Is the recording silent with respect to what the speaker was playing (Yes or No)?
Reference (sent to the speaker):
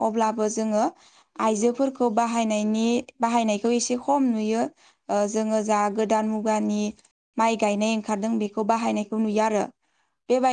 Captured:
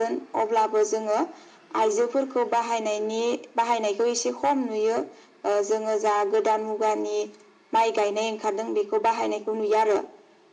No